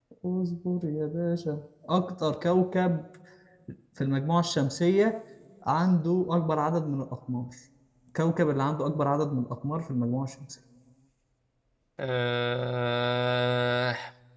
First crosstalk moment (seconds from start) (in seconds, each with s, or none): none